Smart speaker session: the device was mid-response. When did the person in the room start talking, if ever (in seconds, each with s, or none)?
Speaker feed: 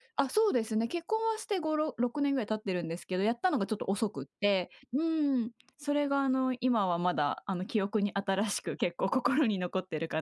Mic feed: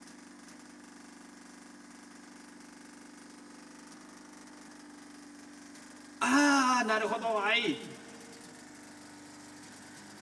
6.2 s